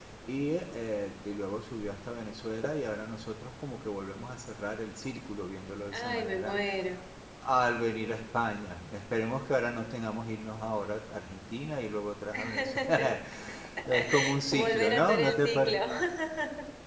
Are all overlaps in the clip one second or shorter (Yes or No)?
No